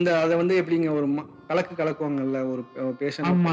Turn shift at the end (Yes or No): Yes